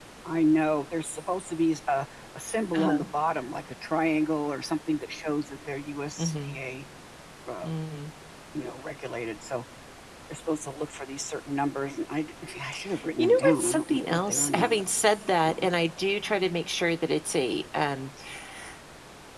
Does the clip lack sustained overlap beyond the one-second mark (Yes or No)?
No